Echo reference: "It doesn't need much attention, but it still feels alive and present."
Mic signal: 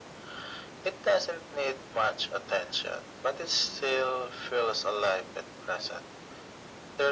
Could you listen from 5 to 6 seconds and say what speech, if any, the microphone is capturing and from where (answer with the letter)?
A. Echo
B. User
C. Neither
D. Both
A